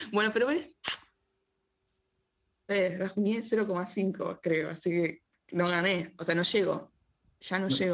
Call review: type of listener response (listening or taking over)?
taking over